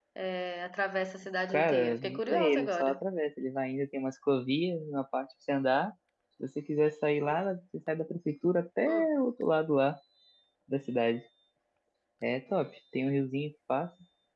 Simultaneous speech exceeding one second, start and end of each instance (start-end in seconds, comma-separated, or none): 1.5-3.0